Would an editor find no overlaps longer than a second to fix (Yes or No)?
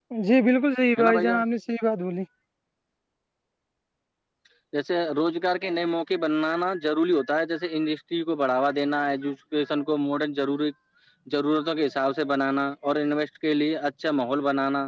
Yes